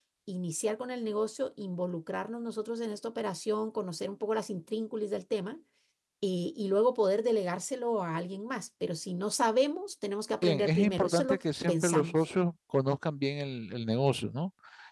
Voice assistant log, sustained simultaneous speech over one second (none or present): present